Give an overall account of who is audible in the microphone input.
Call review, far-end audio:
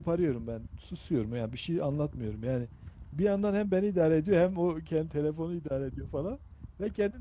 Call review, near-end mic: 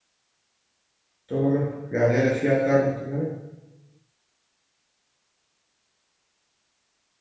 user only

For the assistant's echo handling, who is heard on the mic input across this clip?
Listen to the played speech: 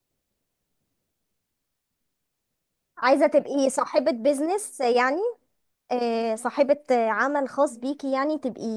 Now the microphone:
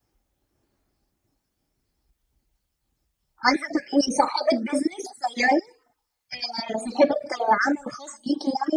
echo only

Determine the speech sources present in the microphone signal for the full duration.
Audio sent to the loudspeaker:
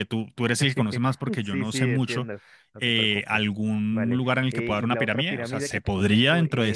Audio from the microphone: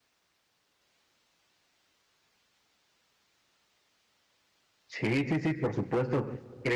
user only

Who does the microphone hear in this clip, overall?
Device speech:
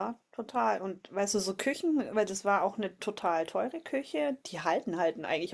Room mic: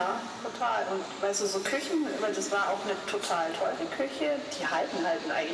echo only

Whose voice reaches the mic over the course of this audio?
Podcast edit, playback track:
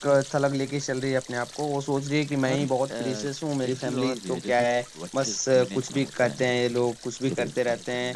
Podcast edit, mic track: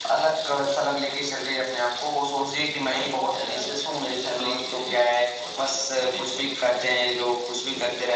echo only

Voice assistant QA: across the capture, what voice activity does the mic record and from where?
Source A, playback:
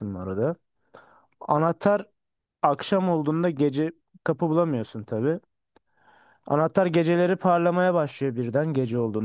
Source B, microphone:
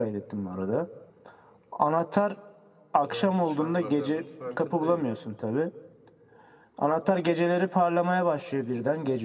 both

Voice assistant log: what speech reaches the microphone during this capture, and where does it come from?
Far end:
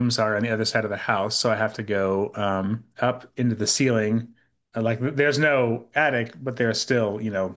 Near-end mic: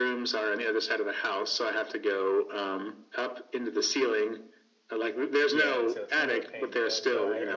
both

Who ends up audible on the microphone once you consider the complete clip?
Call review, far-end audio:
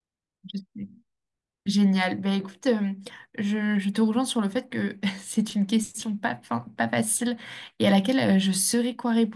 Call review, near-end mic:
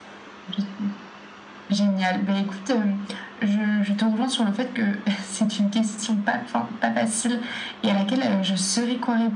echo only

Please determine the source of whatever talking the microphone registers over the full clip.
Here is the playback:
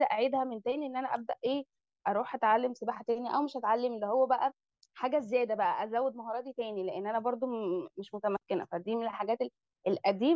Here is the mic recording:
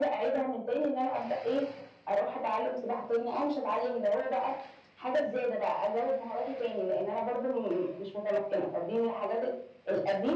echo only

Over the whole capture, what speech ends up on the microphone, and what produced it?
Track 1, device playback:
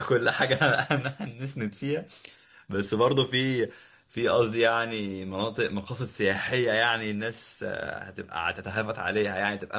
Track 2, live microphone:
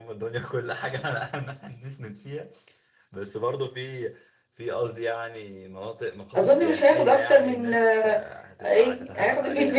both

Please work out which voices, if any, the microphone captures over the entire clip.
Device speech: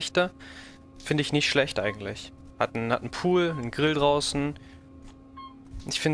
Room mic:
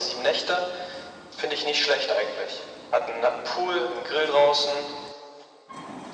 echo only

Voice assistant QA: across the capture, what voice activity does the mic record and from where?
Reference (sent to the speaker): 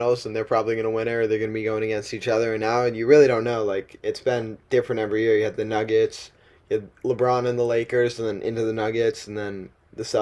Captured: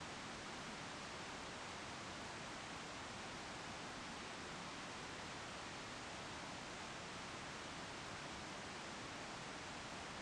neither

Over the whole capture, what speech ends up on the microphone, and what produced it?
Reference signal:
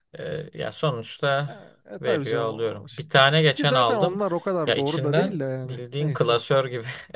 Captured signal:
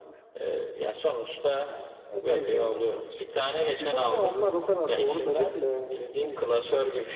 echo only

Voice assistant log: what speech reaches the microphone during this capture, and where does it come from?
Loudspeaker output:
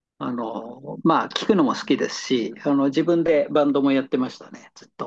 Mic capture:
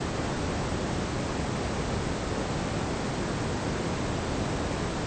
neither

